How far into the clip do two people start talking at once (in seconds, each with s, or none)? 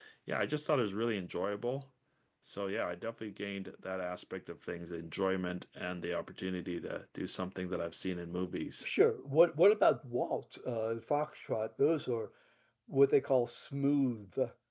none